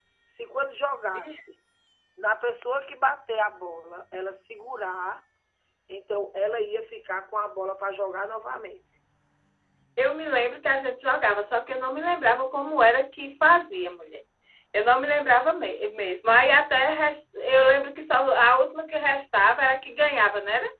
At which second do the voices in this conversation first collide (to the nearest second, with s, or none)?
none